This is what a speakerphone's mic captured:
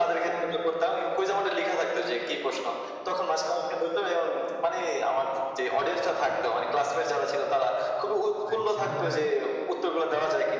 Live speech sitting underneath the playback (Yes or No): Yes